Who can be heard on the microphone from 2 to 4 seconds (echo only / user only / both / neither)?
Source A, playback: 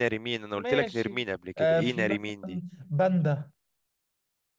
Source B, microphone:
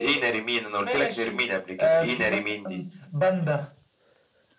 echo only